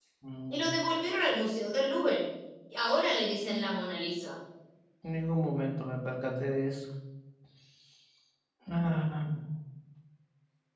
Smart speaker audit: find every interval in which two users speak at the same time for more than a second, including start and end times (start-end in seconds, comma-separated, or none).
none